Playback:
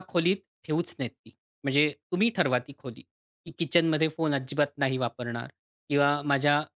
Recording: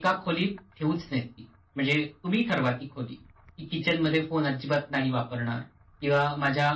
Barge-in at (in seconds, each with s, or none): none